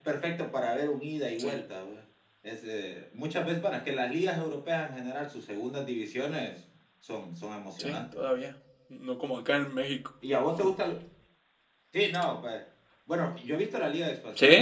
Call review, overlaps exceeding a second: none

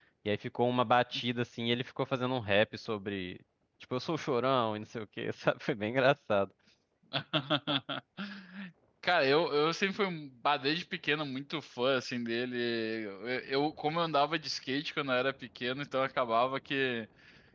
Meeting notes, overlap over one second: none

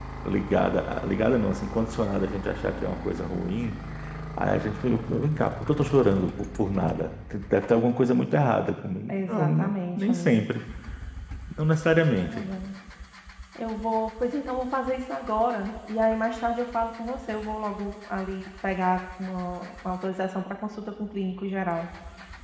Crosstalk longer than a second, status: present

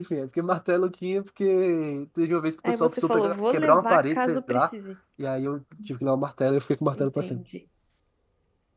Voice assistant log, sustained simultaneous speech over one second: present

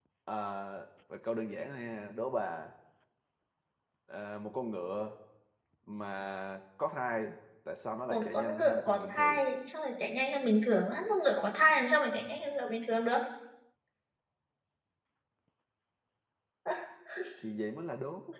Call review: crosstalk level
present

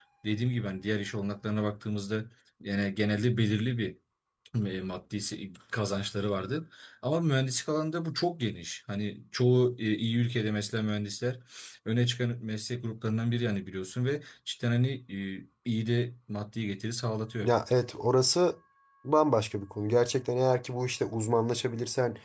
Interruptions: none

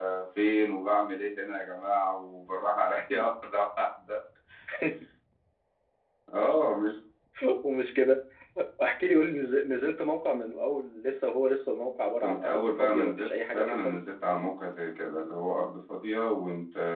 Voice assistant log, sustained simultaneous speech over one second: present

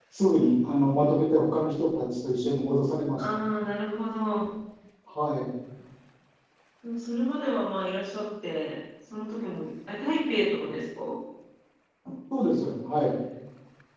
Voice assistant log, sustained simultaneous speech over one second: none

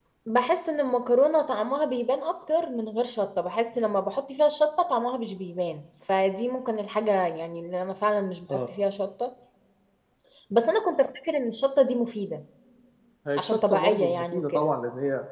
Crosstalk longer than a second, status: present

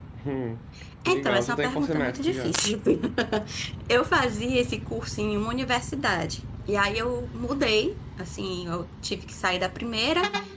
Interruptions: present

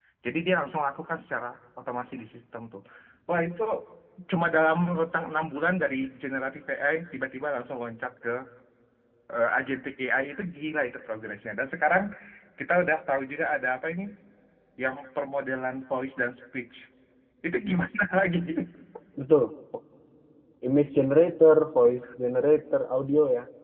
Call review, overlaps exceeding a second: none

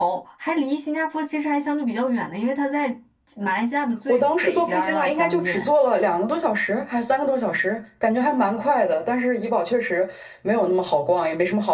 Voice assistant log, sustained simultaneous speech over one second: present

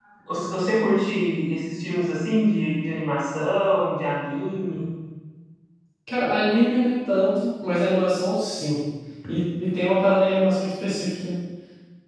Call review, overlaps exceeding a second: none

